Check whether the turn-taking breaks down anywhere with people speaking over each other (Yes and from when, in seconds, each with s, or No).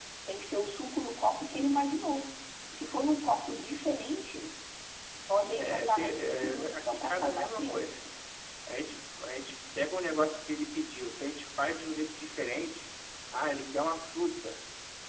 Yes, from 5.6 s